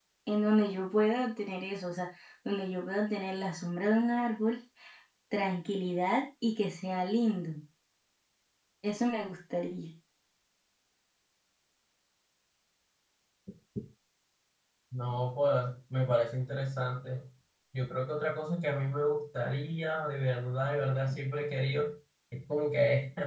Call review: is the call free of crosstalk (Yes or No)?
Yes